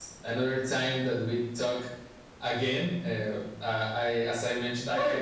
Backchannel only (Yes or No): Yes